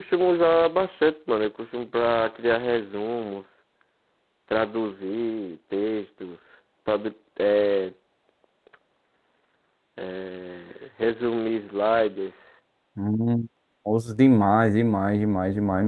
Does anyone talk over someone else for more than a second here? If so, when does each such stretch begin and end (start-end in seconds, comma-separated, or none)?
none